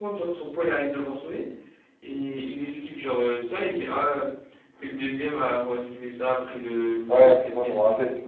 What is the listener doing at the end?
taking over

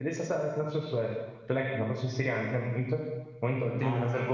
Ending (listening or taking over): listening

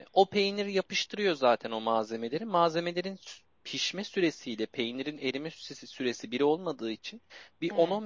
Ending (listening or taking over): listening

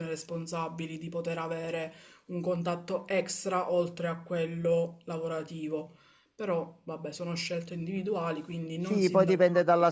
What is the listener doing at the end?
taking over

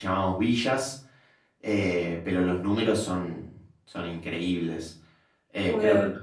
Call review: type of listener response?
listening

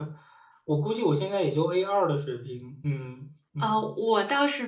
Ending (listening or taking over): taking over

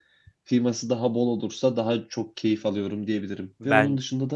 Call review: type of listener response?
listening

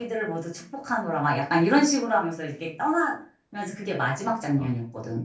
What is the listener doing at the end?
taking over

